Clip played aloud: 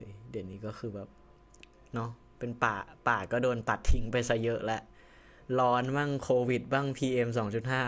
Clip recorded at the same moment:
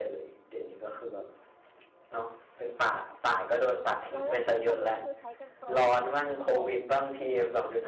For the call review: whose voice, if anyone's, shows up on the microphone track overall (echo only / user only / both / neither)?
both